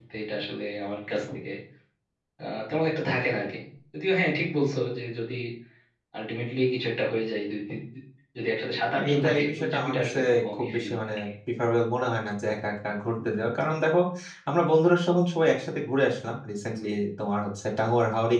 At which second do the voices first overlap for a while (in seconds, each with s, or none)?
8.9 s